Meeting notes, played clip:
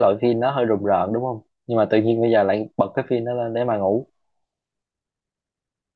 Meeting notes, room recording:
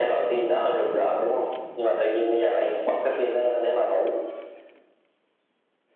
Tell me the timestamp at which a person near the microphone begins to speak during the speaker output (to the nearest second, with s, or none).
none